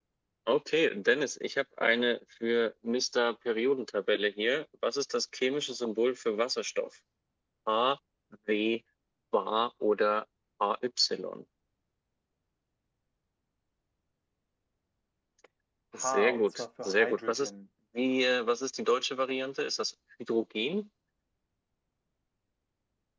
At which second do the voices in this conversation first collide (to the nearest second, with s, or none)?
16 s